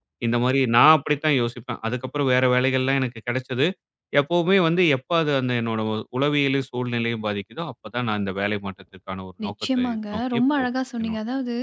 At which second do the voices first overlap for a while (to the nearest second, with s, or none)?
9 s